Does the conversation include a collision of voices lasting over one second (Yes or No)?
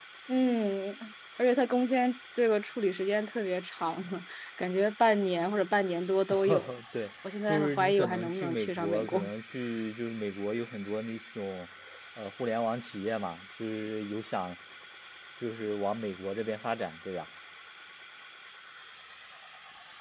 Yes